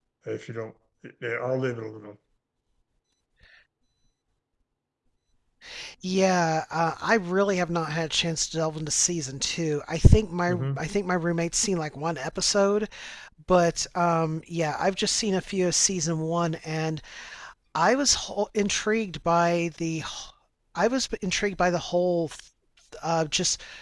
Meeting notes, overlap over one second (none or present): none